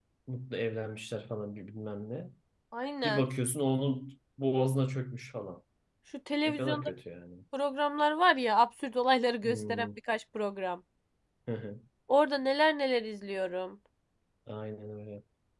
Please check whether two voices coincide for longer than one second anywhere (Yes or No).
No